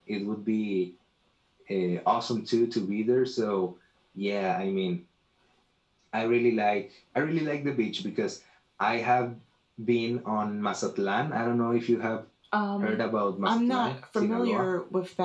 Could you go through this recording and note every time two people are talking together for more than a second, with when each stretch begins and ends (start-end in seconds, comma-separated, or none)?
13.4-14.7